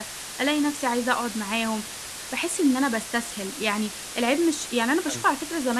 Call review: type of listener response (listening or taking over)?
listening